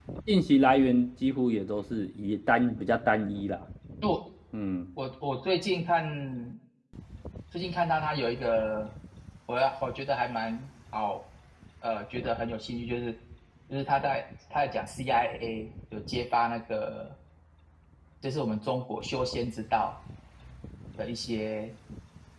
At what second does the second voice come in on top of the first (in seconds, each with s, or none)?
none